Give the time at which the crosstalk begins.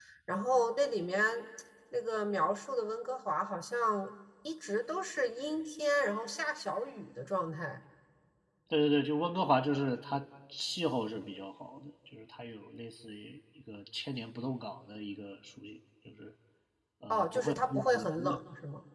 17.1 s

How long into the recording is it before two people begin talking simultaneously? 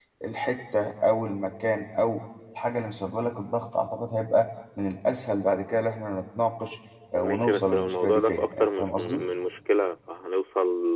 7.1 s

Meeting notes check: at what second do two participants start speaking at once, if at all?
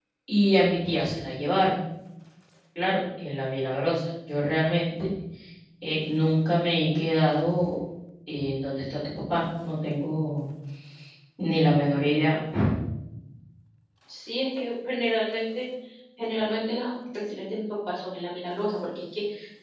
none

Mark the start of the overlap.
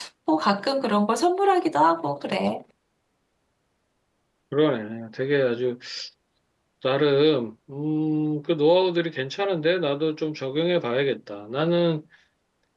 none

